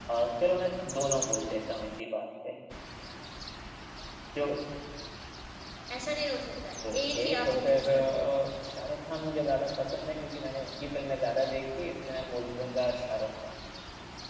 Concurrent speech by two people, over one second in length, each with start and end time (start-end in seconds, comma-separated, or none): 6.9-8.2